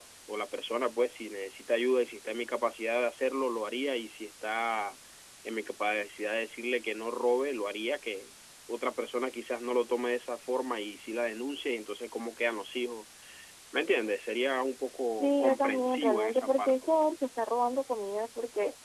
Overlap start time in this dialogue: 15 s

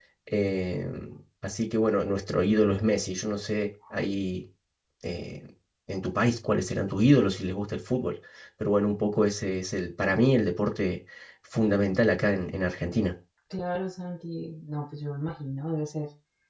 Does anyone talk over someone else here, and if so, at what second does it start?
none

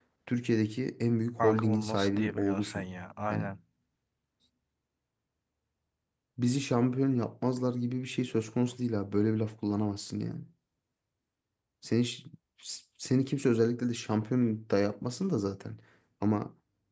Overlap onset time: 1 s

